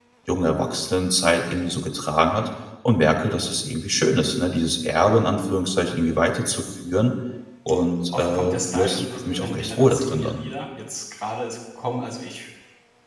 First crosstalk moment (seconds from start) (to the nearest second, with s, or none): 8 s